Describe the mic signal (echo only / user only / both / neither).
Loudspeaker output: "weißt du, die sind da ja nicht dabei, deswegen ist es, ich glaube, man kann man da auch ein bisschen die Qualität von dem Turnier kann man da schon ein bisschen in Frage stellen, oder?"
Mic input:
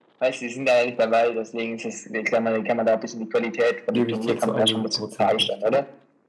both